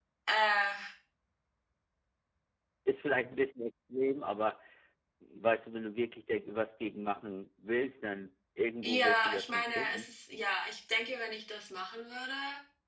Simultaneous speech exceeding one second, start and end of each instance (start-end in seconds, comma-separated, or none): 8.8-10.1